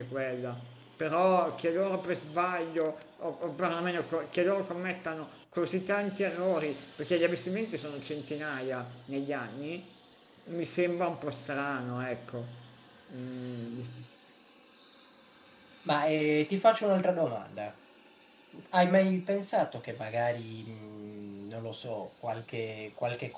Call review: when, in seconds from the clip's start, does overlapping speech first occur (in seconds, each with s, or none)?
none